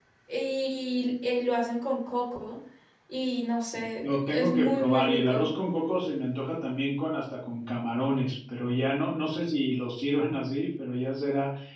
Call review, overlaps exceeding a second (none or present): present